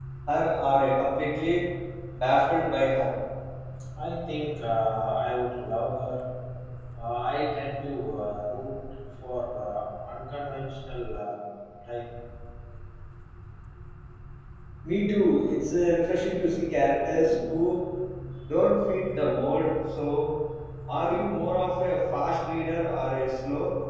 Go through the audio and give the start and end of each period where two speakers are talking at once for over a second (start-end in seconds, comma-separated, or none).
none